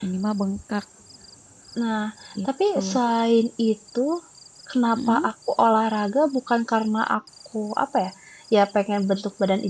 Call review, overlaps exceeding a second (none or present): none